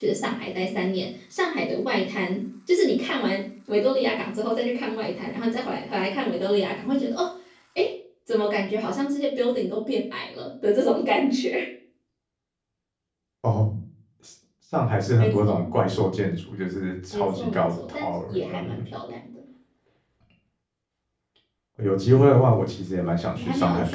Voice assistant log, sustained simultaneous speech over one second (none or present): present